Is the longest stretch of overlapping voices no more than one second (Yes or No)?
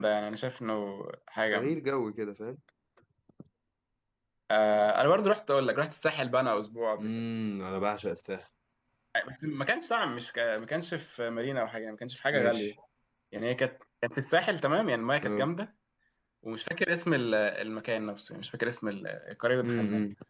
Yes